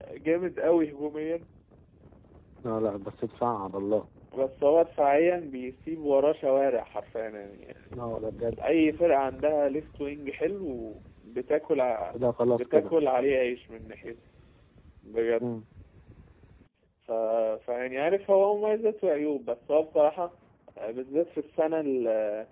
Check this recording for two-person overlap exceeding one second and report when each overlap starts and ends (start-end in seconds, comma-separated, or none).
none